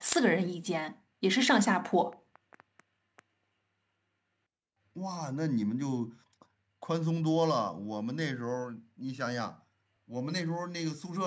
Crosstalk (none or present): none